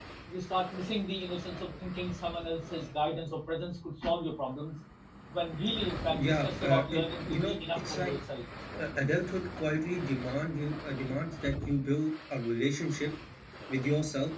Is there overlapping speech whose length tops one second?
Yes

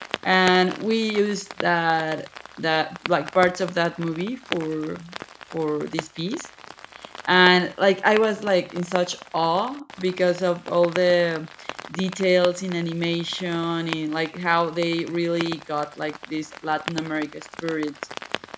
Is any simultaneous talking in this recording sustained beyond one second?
No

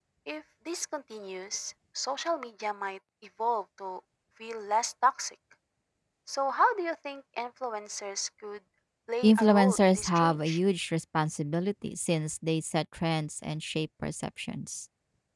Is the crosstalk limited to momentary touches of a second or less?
No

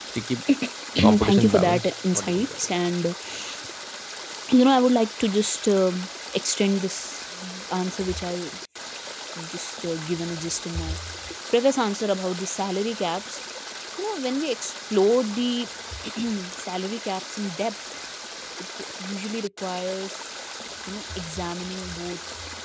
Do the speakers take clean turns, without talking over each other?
No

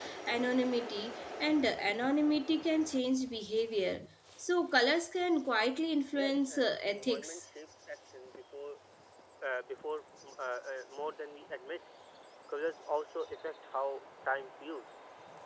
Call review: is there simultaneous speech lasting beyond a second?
Yes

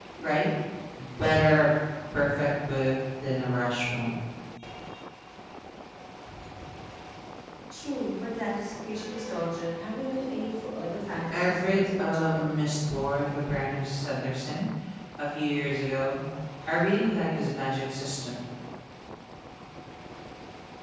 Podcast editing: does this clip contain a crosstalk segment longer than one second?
Yes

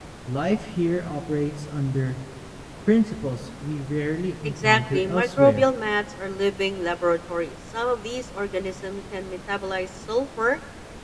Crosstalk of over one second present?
Yes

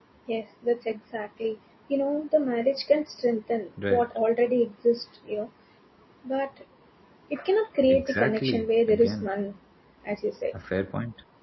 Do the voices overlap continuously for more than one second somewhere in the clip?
Yes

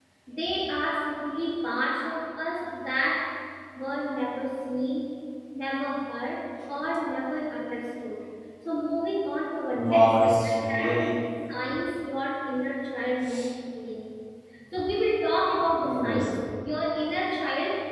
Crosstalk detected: Yes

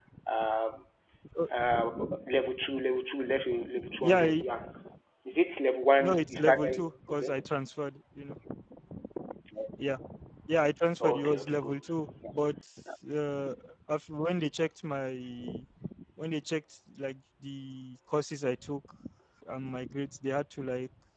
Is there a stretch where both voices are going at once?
Yes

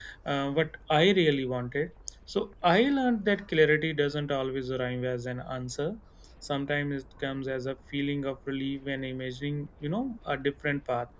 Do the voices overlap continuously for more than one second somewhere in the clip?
No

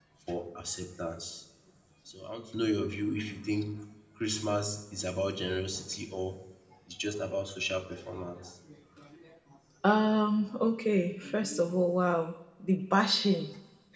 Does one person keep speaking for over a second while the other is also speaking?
No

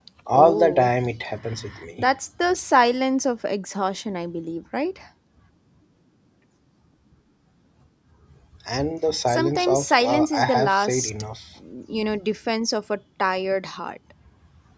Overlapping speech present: Yes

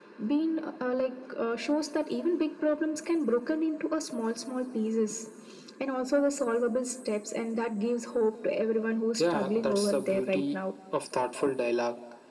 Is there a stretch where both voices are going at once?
Yes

